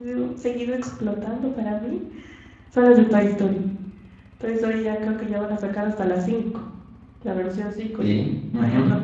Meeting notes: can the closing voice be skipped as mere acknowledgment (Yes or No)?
Yes